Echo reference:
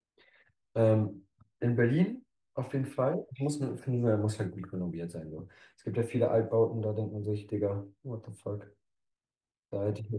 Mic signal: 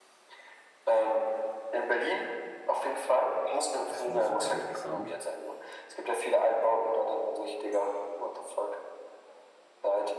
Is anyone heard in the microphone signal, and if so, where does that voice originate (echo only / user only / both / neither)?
both